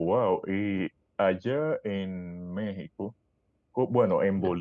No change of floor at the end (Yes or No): Yes